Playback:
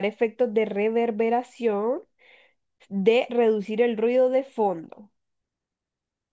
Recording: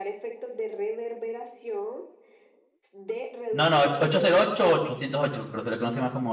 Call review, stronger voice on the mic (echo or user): user